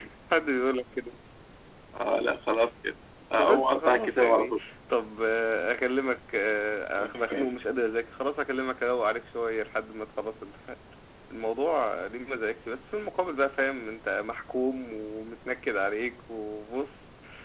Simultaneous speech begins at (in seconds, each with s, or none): 3.4 s